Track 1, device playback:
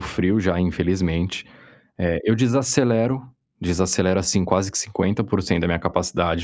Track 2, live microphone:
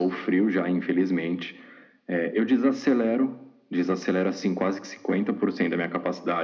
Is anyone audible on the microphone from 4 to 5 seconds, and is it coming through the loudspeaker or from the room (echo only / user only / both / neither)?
echo only